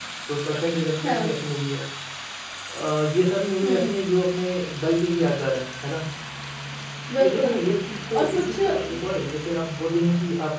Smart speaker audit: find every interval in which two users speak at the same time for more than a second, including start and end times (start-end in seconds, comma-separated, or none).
7.2-9.0